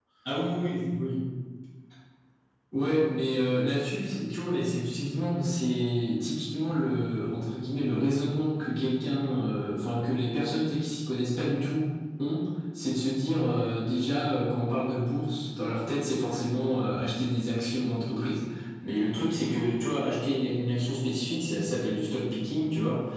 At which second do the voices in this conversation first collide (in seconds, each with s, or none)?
none